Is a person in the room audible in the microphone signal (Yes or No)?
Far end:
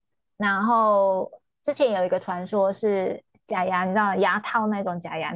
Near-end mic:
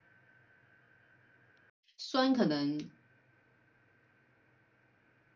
Yes